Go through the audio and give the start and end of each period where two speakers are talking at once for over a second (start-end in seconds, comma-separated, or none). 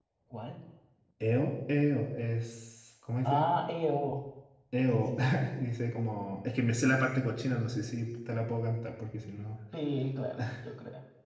none